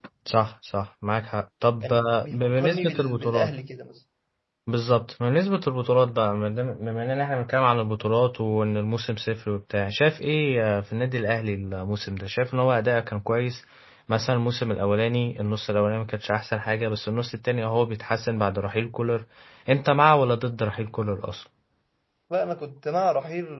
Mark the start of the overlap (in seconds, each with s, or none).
1.8 s